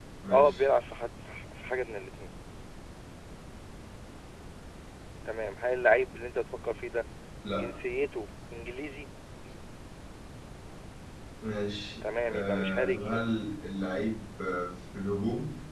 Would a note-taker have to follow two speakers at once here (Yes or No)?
Yes